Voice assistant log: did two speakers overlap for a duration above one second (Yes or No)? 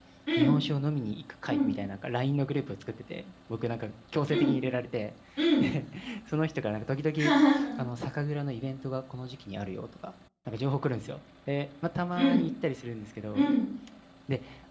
No